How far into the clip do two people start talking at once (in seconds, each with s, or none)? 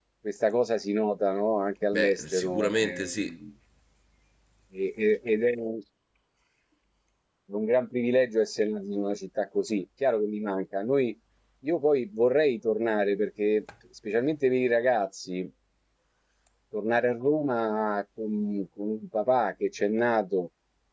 1.9 s